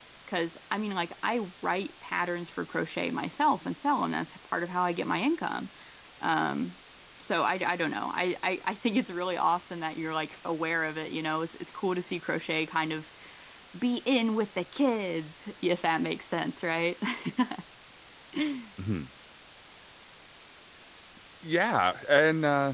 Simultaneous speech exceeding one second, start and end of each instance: none

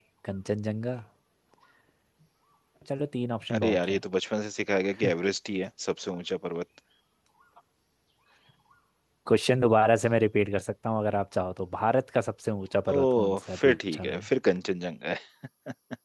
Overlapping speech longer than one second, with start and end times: 12.9-14.2

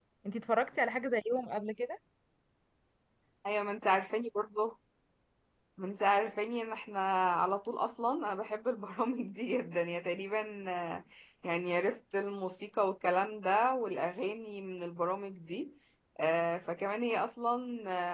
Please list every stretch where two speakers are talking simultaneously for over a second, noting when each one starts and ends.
none

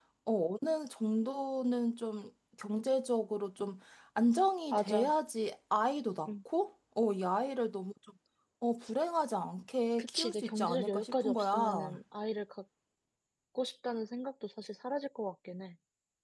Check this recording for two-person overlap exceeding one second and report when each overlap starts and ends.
10.0-12.0

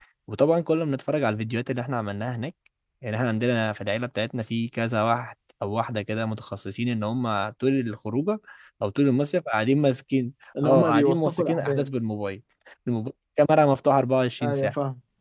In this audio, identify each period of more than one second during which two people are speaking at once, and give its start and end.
10.6-11.9

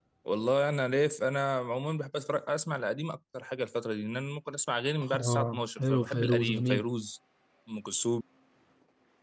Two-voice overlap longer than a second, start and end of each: 5.1-6.8

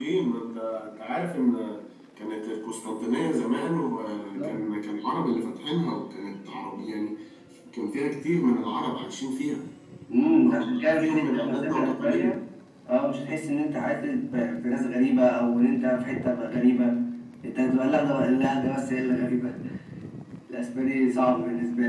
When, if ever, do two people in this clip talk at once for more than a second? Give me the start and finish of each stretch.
10.4-12.4

